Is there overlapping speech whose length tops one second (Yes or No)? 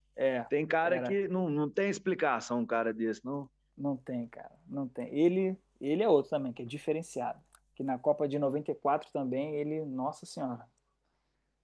No